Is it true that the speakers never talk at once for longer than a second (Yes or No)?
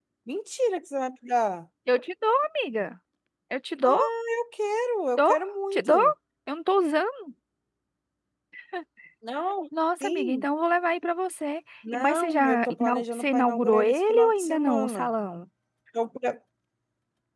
No